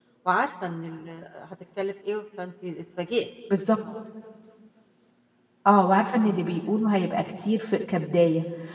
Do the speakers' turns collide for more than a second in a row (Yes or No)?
No